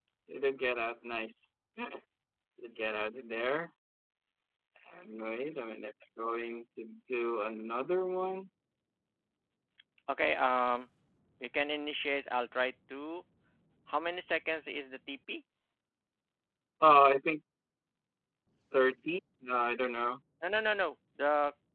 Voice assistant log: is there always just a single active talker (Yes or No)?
Yes